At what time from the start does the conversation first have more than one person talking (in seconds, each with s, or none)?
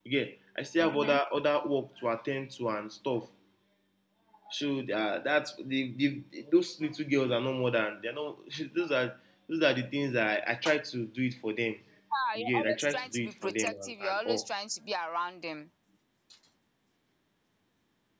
12.3 s